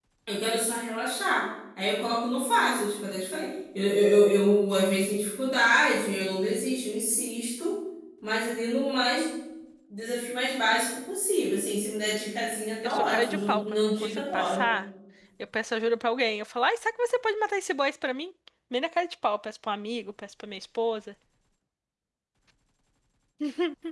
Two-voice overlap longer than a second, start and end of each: 12.8-14.6

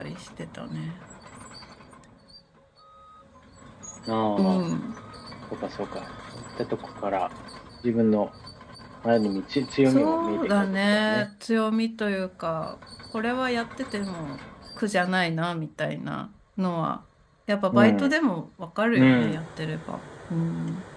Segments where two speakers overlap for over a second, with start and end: 9.9-11.3

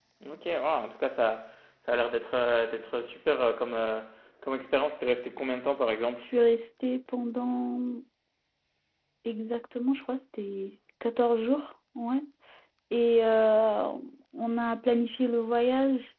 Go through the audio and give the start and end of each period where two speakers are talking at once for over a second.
none

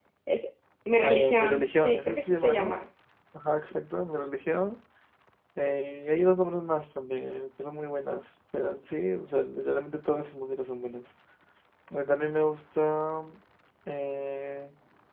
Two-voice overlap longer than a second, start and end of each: 1.0-2.8

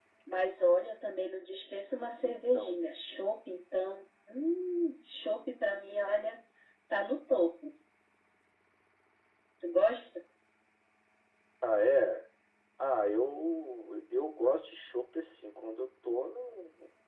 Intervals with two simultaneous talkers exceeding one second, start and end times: none

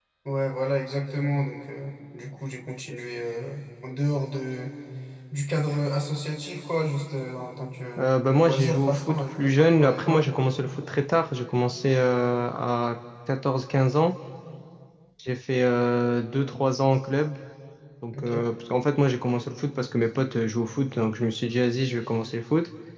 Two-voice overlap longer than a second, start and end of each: 8.0-10.3

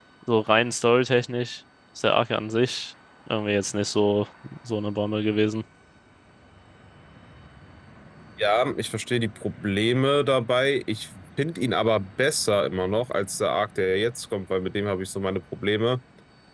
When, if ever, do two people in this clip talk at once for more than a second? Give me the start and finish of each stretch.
none

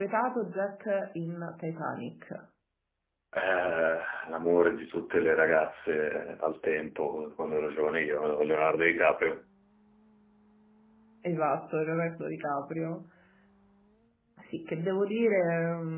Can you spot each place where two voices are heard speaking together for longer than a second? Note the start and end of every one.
none

